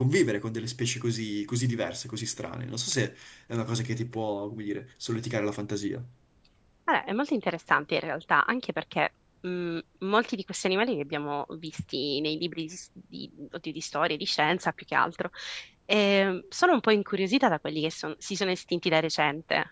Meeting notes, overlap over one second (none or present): none